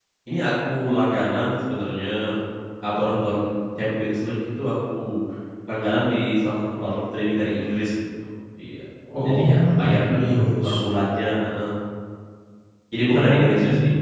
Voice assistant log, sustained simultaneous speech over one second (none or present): present